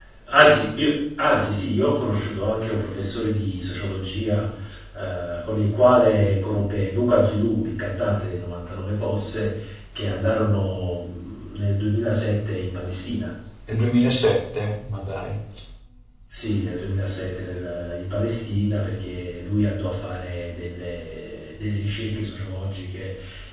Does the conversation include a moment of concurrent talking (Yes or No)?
No